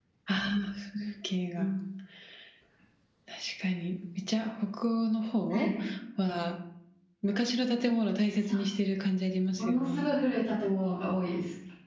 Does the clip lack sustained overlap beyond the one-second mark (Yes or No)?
Yes